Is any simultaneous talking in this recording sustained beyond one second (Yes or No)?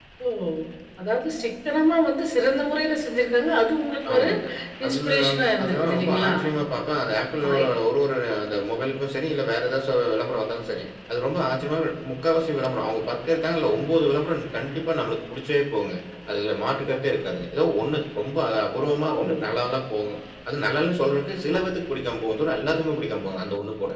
Yes